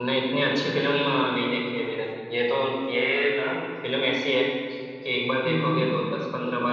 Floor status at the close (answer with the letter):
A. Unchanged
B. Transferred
A